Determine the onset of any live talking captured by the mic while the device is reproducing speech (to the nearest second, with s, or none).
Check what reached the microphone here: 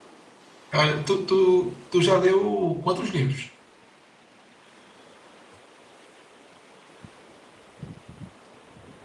1 s